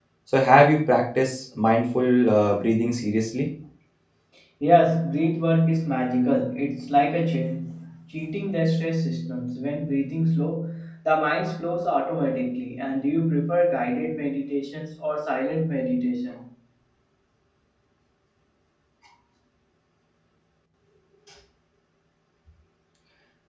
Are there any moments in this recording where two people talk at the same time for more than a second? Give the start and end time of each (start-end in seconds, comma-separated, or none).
none